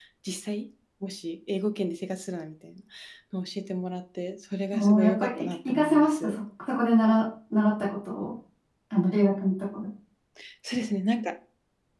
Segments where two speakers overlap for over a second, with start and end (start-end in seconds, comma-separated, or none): 4.7-6.4